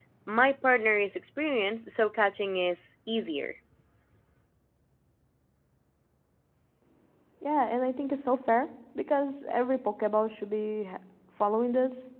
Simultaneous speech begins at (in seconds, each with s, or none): none